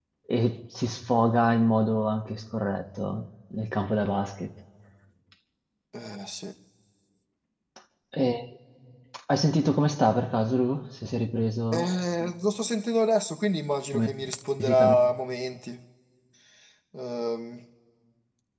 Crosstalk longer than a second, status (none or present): none